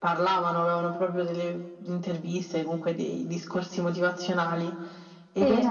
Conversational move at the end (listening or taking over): listening